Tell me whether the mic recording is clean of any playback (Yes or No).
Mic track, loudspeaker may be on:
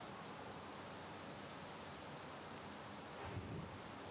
Yes